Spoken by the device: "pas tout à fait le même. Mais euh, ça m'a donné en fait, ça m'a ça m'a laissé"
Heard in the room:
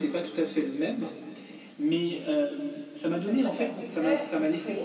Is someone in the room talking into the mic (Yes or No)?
Yes